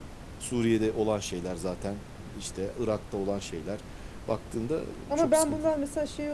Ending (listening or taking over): taking over